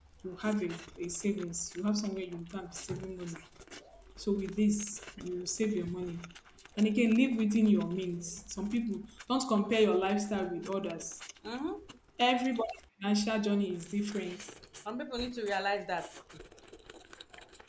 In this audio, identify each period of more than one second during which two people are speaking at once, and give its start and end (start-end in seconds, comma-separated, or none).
none